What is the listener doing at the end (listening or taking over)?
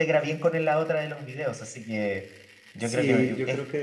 taking over